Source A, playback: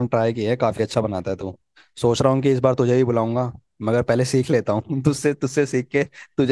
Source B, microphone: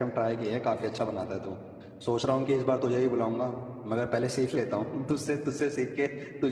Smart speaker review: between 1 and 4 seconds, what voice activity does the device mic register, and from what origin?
echo only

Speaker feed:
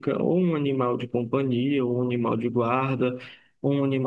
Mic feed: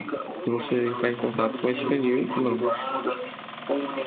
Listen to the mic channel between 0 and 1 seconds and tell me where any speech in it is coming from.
both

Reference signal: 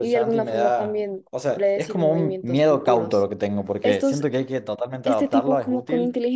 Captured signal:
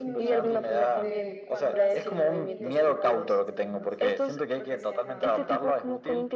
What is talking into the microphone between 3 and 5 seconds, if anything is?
both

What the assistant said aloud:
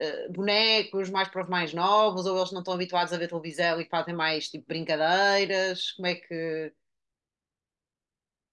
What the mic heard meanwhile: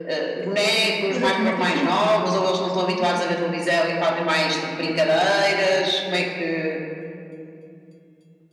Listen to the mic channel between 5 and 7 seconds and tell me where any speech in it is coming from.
echo only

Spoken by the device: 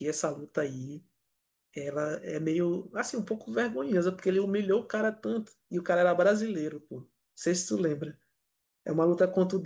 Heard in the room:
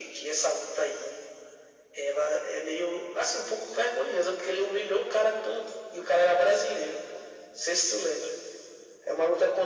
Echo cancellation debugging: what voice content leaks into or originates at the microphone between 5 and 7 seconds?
echo only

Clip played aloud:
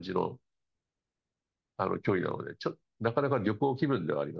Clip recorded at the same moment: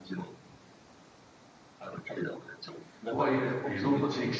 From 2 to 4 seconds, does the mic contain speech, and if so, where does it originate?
both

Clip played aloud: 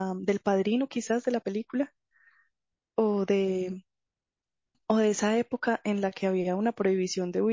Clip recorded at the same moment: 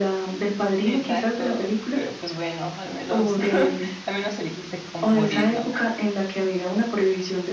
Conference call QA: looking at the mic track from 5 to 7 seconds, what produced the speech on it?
both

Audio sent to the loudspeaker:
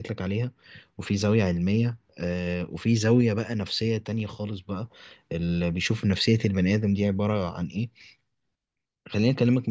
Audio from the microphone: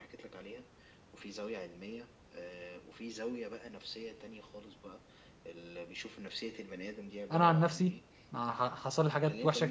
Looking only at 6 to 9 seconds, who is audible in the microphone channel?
both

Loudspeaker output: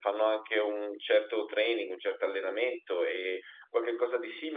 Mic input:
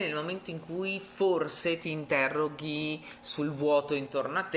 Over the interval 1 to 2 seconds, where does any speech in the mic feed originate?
user only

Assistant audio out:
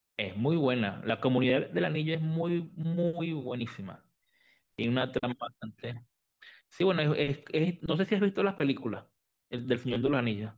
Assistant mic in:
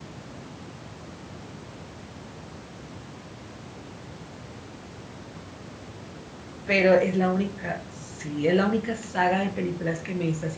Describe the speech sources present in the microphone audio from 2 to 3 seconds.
neither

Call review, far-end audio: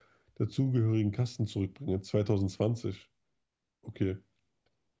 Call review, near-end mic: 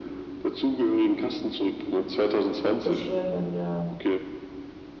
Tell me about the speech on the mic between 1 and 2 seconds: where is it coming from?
echo only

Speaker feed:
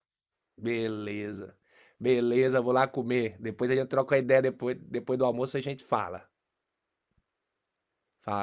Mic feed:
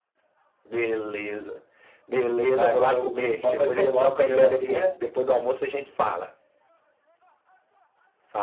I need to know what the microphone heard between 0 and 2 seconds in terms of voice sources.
echo only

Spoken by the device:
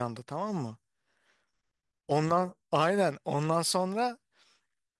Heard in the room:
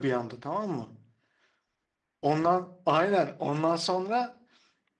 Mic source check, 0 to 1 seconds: echo only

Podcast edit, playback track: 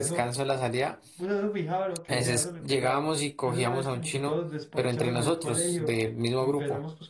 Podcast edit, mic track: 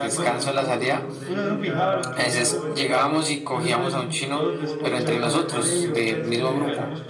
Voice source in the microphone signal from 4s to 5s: both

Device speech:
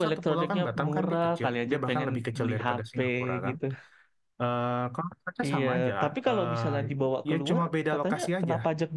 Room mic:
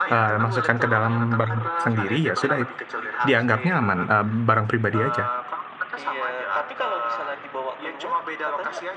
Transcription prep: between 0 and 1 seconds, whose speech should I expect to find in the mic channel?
both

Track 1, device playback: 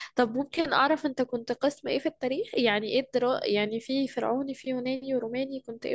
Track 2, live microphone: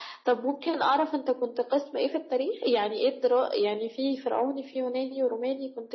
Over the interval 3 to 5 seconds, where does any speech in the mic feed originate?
echo only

